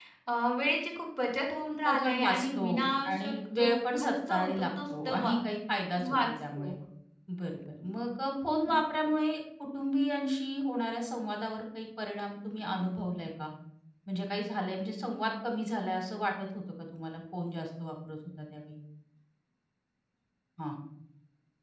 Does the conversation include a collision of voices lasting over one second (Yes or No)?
Yes